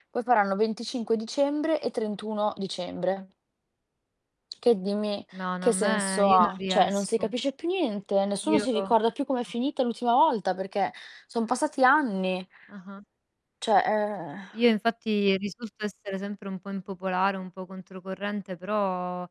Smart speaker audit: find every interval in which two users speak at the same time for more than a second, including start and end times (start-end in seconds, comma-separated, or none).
5.6-7.3